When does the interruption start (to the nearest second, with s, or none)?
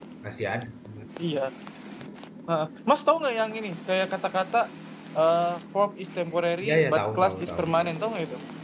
7 s